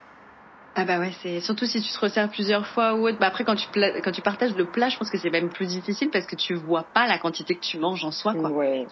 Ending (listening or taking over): taking over